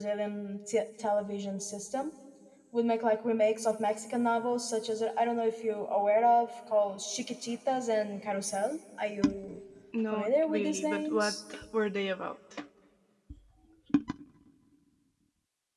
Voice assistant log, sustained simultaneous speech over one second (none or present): present